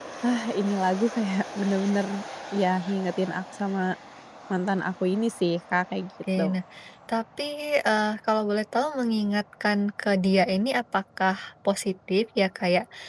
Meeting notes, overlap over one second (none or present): none